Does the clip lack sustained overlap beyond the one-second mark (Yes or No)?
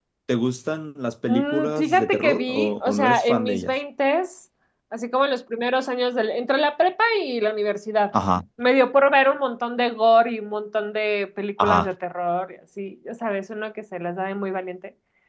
No